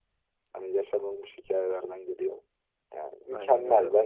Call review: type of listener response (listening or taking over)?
listening